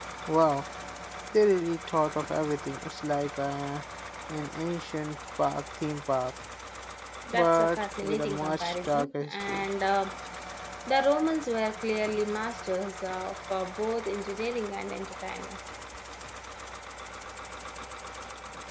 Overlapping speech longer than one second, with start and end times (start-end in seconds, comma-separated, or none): 7.3-9.7